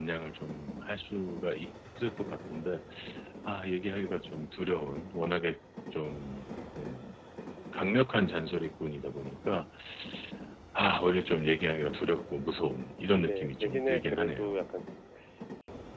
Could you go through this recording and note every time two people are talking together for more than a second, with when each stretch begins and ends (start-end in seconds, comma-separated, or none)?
13.2-14.6